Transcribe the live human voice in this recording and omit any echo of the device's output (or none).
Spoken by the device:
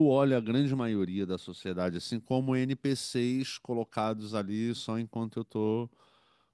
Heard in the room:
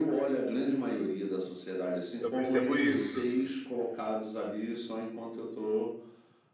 eu percebo isso.